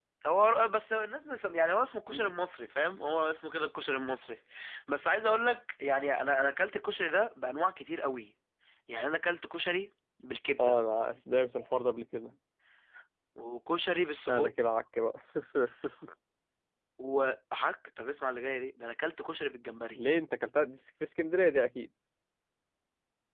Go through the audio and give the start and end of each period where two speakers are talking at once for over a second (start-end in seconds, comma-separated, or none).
none